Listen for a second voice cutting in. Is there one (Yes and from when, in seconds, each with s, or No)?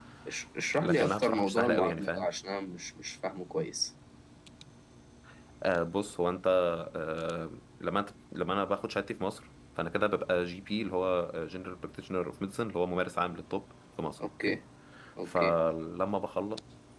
Yes, from 0.8 s